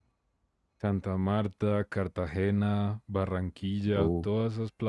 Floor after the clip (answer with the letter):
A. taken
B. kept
B